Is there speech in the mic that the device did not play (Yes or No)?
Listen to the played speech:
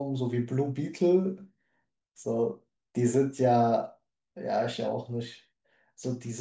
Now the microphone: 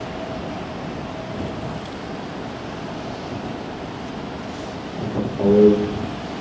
Yes